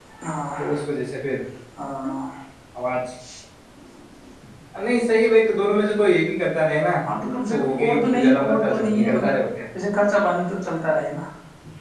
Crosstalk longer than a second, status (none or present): present